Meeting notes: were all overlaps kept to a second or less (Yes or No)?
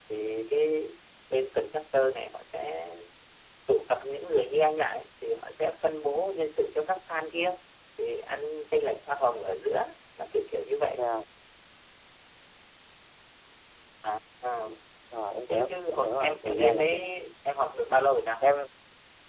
No